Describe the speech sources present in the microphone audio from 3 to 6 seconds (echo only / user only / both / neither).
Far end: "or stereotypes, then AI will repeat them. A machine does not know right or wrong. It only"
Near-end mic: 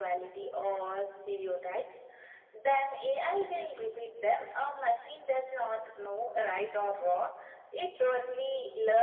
echo only